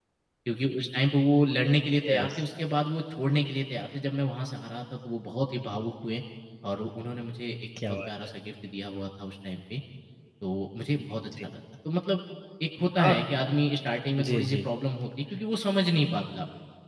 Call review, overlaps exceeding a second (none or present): none